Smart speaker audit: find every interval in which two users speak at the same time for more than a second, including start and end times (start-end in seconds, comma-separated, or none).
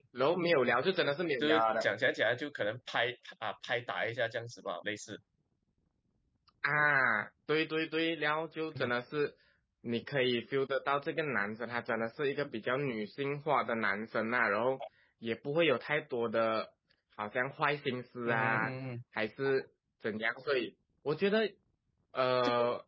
none